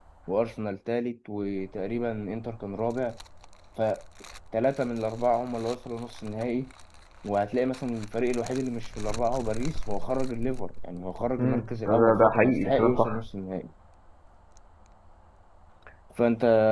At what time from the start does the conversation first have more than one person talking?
11 s

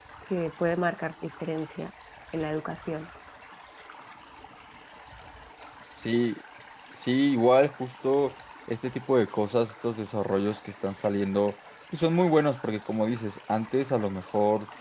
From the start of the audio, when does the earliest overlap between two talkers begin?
none

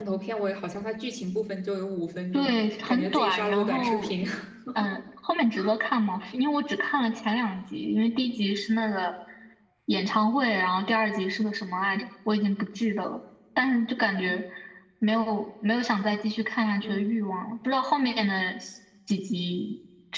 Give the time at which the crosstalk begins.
2 s

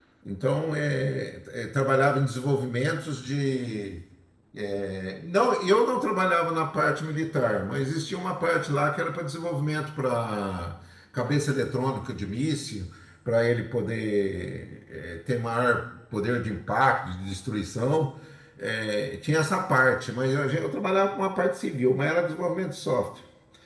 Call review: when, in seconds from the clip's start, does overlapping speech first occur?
none

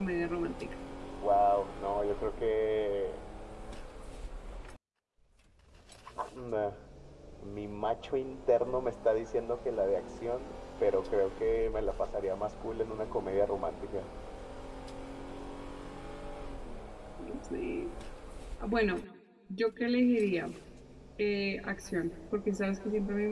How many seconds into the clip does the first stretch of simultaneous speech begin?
none

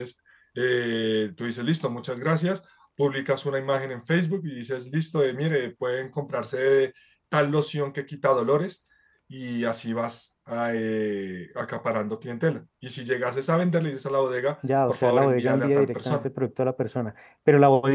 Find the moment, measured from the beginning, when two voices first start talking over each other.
15 s

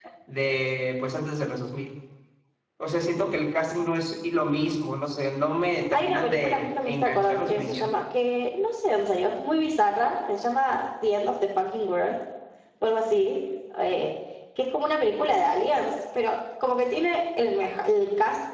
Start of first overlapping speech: 6 s

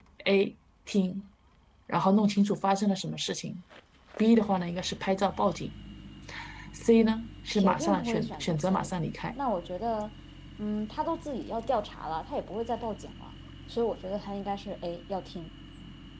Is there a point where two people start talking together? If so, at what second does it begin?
8 s

